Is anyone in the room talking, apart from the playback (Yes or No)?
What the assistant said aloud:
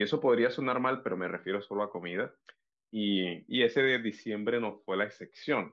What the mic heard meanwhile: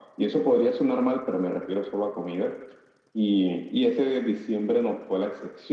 No